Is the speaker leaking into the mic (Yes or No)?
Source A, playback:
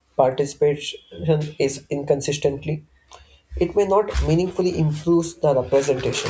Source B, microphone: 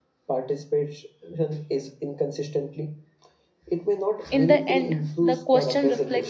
Yes